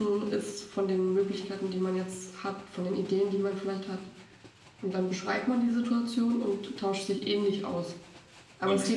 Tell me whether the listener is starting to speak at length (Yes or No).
No